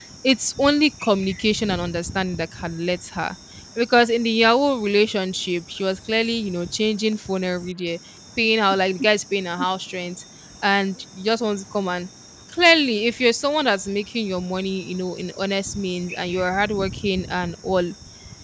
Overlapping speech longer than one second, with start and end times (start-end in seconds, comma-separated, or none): none